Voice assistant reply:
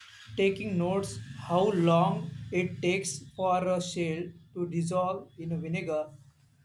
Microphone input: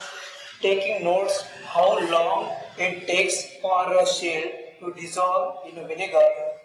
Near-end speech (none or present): none